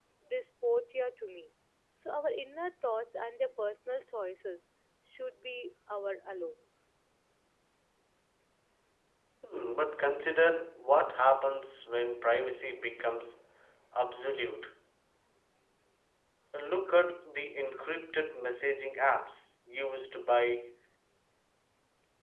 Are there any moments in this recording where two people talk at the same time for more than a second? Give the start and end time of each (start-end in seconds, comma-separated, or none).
none